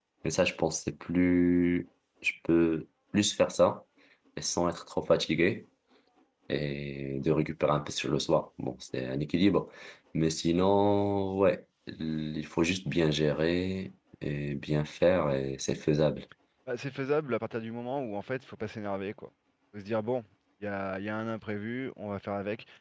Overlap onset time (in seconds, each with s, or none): none